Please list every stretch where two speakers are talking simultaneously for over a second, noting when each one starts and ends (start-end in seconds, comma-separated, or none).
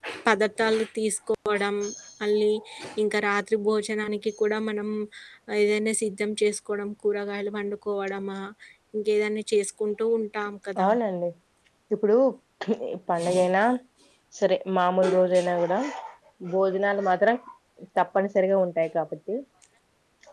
none